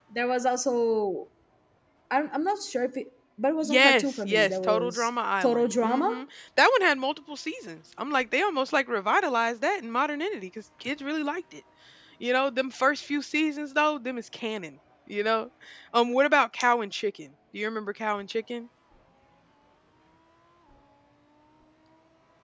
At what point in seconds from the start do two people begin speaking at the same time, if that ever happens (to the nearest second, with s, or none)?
4 s